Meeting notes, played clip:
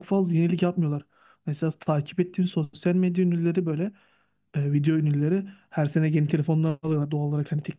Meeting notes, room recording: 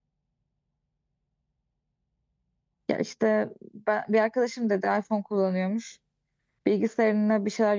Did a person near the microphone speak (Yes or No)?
Yes